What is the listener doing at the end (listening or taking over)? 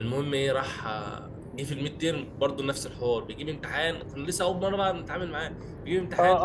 taking over